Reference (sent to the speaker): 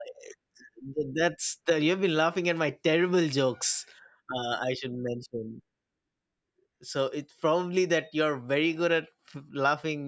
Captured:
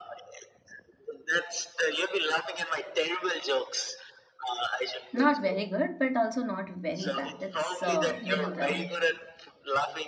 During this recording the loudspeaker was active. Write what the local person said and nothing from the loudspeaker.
not very good, but also not very bad. It's uh, middle ground.

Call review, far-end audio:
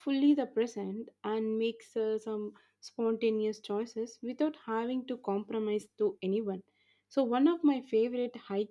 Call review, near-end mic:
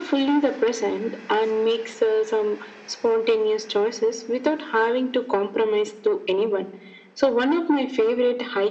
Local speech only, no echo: none

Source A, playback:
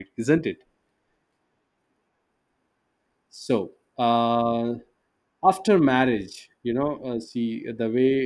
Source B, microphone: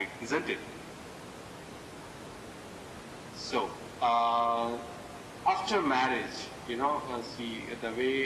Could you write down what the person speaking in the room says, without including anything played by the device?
none

